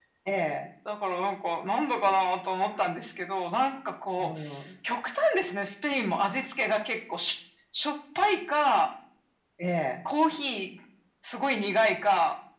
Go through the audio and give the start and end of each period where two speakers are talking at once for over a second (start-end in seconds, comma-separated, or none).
none